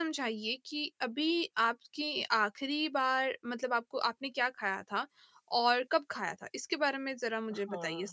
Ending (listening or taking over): taking over